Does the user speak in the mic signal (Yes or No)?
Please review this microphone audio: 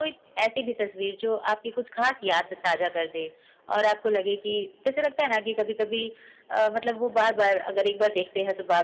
No